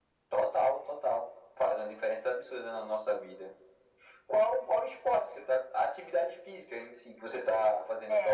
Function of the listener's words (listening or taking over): taking over